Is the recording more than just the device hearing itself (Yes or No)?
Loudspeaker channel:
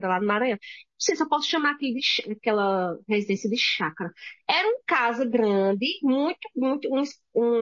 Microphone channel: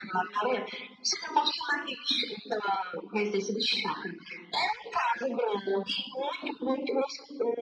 No